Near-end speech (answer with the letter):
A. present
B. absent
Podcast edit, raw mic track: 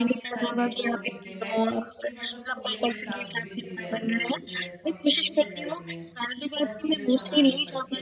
A